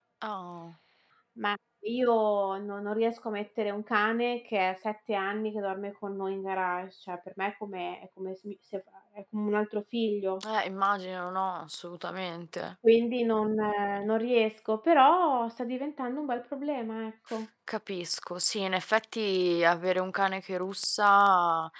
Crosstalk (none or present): none